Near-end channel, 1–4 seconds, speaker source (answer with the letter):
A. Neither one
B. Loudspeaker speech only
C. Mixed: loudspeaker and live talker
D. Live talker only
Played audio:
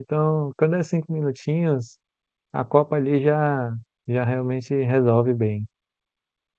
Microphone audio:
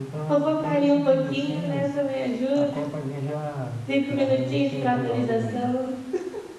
C